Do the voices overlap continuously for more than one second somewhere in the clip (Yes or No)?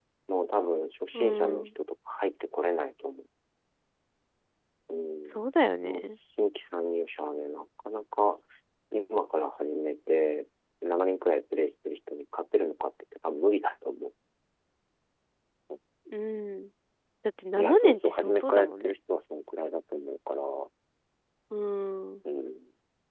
Yes